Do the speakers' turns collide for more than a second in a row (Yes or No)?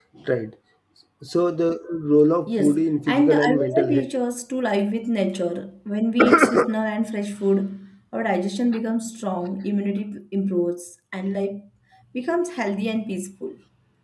Yes